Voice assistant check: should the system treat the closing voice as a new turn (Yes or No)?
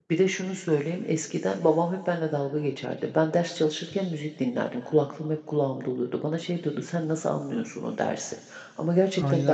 Yes